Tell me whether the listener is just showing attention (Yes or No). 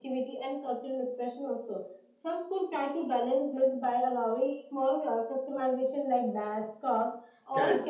Yes